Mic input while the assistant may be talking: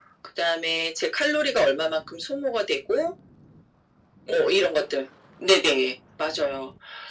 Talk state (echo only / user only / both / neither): echo only